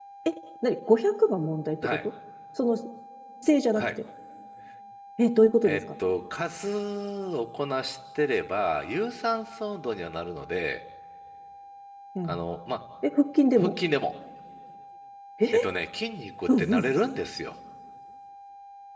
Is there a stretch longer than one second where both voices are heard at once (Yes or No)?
No